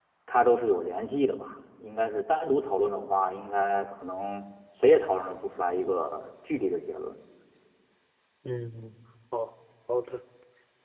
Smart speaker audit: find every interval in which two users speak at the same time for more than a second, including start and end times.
none

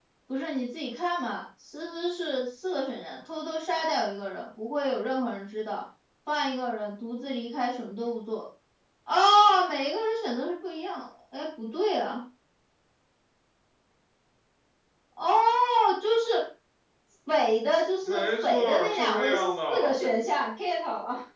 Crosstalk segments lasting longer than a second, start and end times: 18.1-19.9

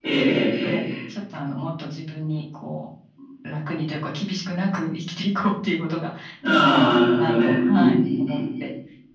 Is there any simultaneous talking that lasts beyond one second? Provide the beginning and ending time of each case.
6.5-7.9

